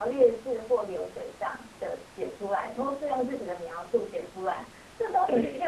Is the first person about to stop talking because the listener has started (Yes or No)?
No